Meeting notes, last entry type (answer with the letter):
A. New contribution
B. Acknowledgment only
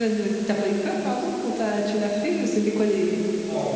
A